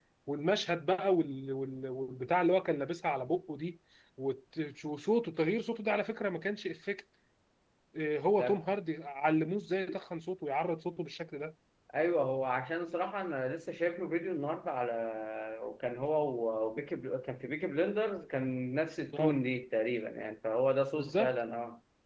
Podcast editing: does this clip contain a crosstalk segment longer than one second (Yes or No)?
No